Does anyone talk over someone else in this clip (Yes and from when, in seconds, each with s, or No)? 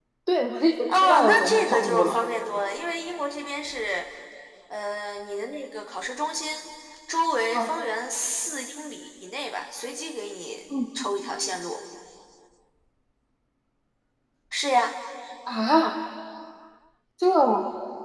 Yes, from 0.9 s